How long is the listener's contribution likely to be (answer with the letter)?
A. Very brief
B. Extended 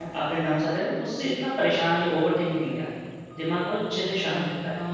B